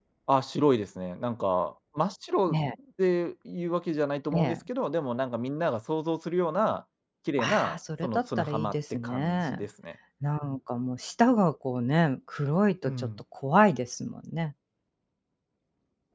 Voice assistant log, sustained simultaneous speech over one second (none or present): present